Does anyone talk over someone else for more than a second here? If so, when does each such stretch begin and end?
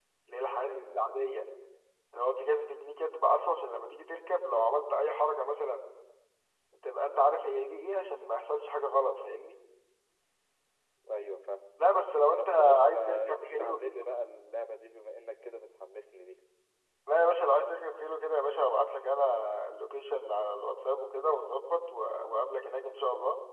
12.4-14.0

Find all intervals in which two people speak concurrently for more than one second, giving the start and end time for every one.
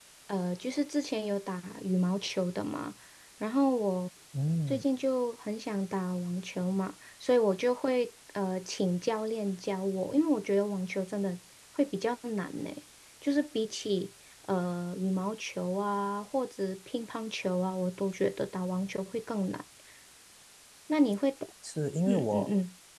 none

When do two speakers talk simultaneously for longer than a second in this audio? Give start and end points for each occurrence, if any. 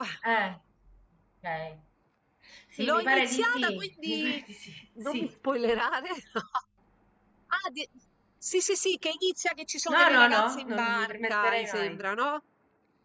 2.8-4.4, 9.9-11.9

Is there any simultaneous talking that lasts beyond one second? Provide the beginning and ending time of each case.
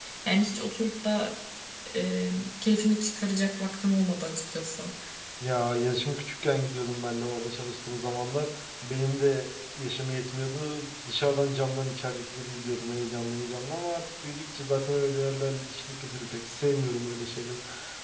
none

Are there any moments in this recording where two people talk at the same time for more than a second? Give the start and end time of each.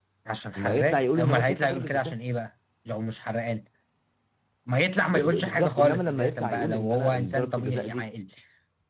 0.6-2.1, 5.1-8.0

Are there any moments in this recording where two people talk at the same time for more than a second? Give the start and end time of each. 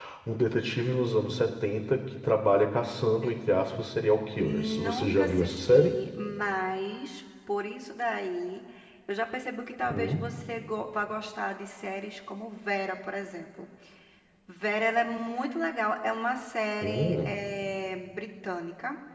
4.3-6.0

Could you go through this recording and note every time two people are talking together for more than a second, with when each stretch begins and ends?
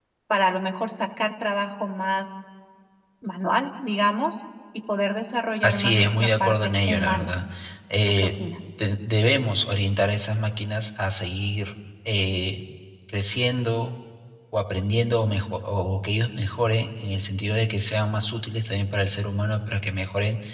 5.6-7.3

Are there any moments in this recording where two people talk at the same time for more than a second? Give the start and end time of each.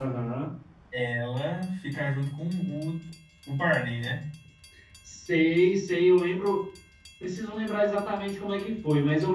none

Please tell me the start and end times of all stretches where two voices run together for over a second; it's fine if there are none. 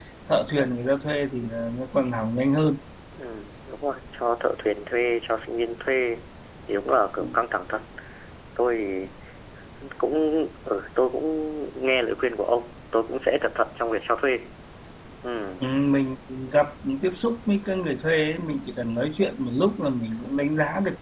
none

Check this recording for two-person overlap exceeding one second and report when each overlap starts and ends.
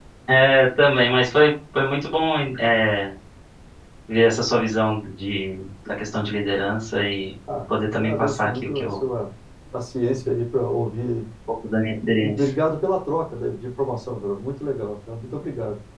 7.7-9.0

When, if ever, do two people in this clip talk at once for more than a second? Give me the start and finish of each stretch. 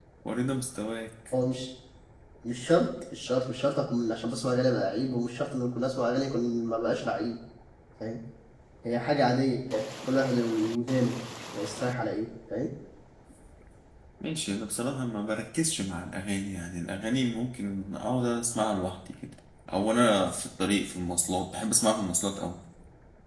none

